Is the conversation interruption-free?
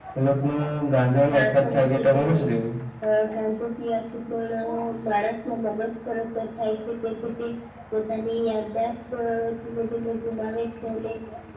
No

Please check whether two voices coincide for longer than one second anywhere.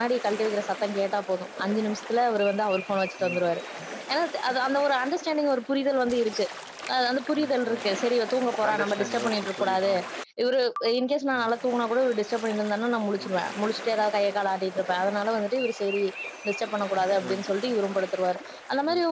Yes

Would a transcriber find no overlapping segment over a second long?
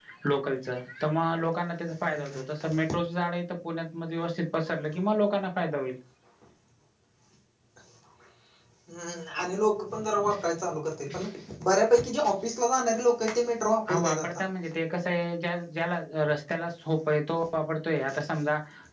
Yes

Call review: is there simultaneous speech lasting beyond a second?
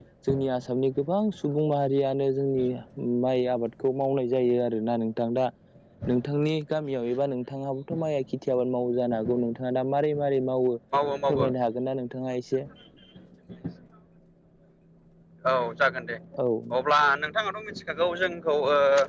No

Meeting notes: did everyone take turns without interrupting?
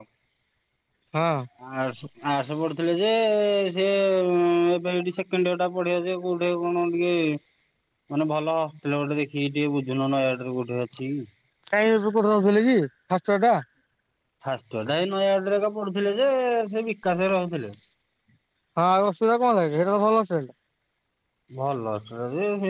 Yes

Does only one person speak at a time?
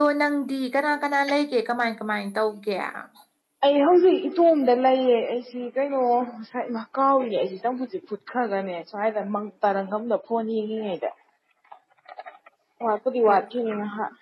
Yes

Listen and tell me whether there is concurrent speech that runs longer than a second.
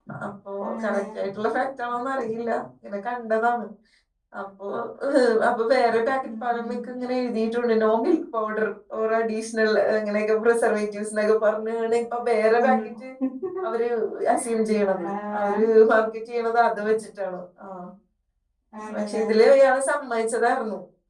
No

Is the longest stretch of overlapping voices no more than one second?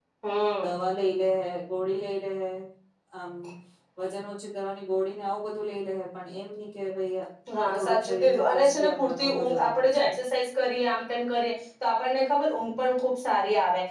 No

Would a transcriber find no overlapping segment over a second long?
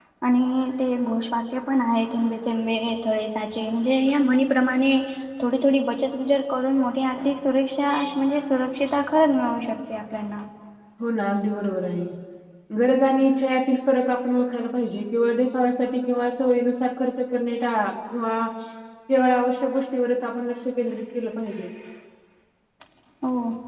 Yes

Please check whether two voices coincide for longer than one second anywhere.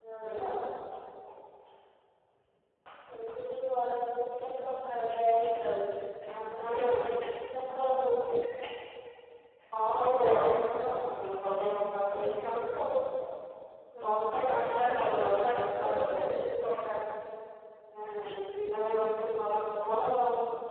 Yes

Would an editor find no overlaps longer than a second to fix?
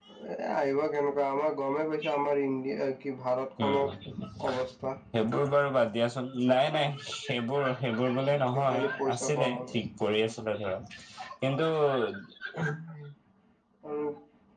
No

